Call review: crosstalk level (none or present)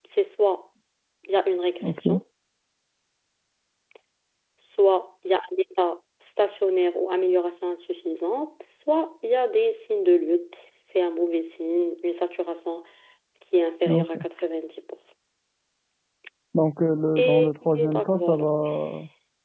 present